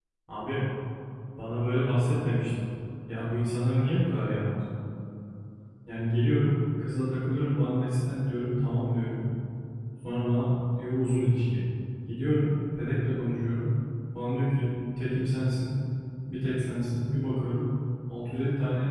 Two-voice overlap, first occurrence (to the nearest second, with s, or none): none